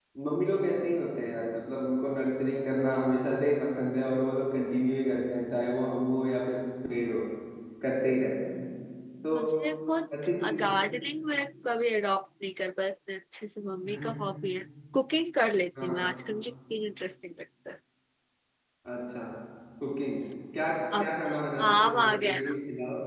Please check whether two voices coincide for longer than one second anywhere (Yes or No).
Yes